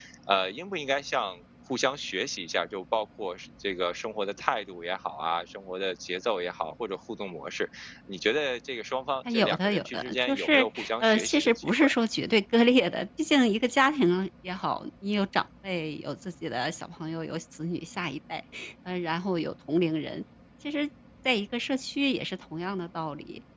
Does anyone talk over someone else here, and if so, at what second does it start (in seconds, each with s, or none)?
9.2 s